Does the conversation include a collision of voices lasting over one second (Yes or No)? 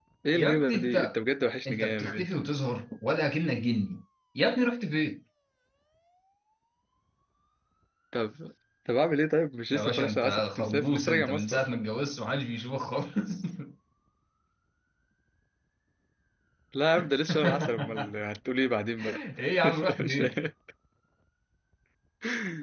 Yes